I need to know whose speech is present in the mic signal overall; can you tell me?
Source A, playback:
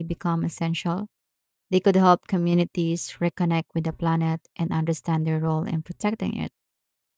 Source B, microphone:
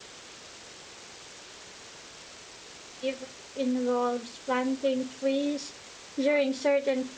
user only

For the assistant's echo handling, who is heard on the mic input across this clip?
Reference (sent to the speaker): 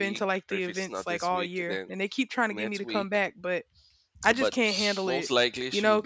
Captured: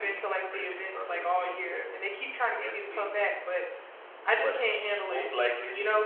echo only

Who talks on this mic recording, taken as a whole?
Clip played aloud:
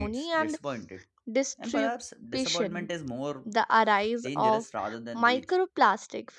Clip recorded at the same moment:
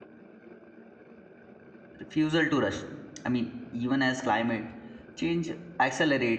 user only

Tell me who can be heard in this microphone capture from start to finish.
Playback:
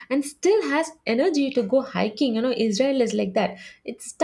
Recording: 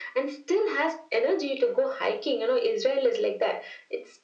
echo only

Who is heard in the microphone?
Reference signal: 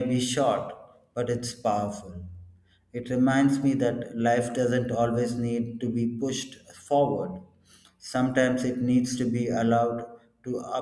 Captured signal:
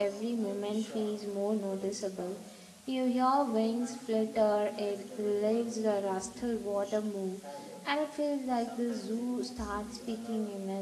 both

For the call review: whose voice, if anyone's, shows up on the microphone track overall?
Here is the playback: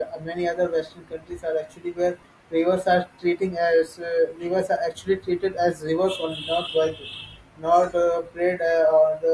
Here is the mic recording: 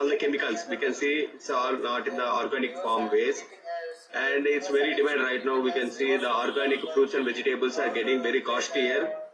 both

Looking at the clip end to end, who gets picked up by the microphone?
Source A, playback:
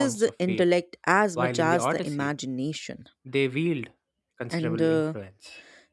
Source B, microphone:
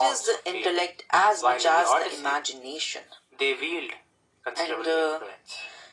echo only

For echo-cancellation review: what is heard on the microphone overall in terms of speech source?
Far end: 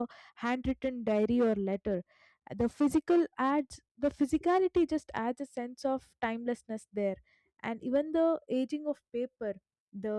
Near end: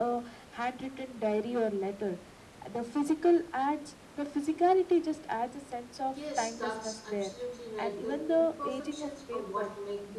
both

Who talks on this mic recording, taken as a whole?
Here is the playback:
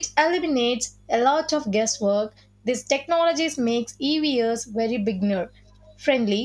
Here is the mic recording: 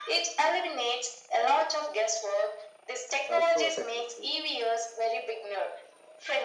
both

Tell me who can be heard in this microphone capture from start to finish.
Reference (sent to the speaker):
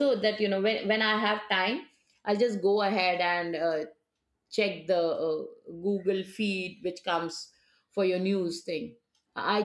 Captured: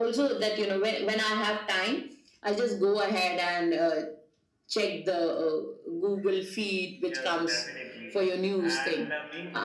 both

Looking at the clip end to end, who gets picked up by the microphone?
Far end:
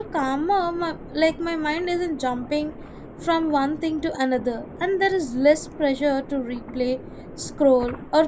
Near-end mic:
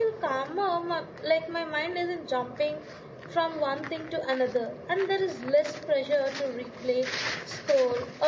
echo only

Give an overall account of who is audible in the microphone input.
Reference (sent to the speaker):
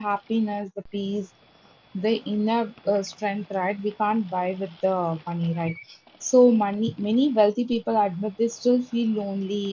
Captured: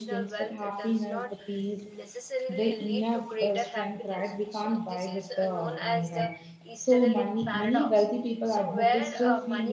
both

